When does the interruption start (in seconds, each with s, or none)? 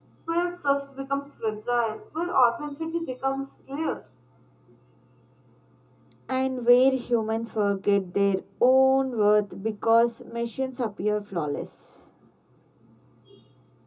none